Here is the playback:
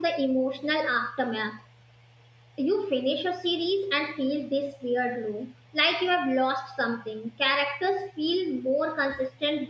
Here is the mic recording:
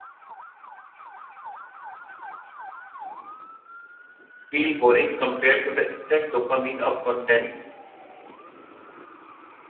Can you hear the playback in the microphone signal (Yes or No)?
No